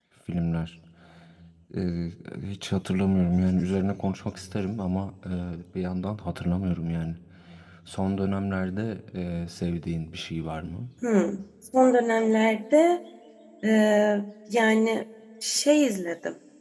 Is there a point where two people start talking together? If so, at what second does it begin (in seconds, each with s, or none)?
none